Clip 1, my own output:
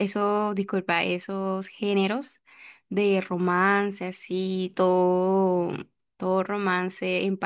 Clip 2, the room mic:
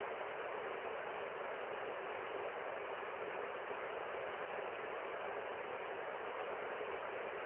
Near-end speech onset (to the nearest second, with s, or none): none